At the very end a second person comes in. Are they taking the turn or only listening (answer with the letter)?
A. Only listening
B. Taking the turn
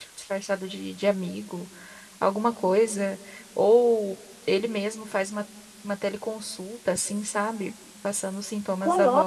B